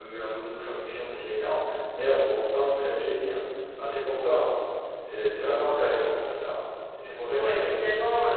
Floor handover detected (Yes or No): Yes